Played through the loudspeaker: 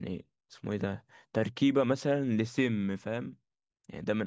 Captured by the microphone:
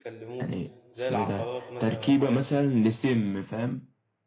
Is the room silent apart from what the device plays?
No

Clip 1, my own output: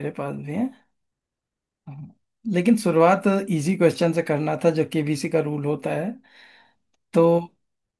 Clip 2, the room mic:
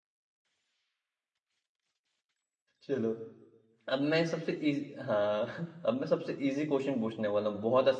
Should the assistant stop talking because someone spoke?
Yes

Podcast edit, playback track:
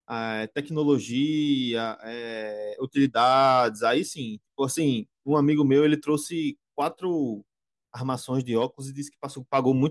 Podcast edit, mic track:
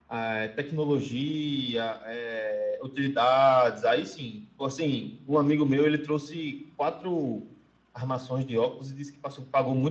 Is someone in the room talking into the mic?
No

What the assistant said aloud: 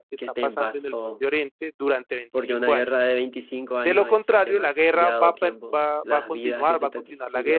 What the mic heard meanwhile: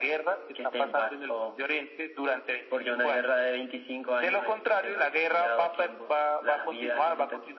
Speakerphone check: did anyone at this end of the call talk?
No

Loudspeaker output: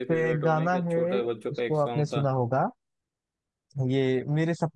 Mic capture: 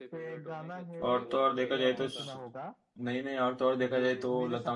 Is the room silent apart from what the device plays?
No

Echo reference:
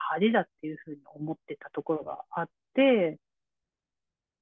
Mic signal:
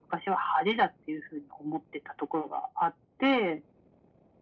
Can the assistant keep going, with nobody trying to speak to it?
Yes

